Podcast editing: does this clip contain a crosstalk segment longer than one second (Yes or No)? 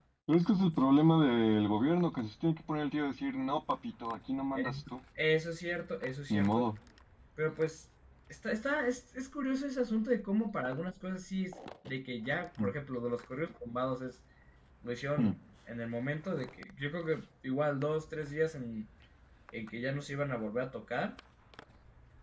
No